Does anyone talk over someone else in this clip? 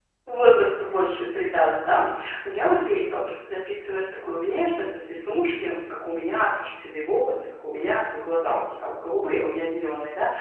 No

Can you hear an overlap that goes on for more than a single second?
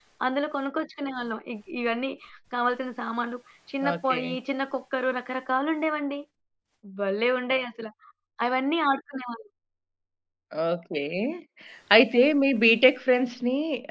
No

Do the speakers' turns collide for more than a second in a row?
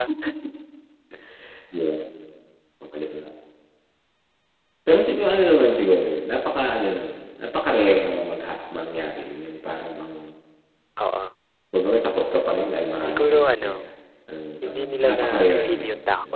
Yes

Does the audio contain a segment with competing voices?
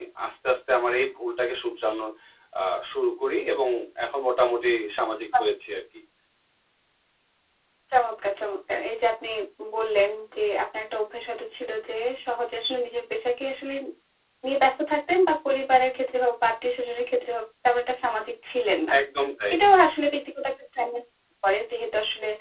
No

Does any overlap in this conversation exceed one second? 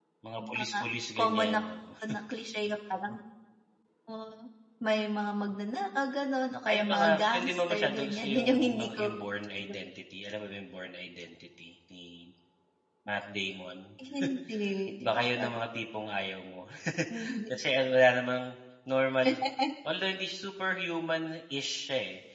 Yes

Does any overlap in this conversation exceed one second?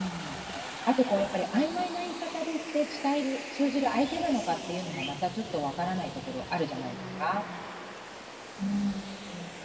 Yes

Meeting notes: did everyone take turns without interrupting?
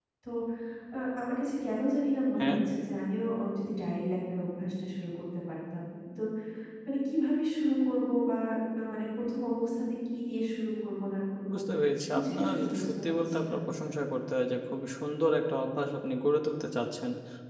No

